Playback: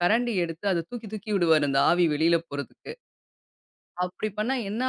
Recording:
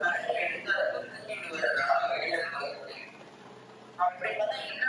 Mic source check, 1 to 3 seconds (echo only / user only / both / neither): echo only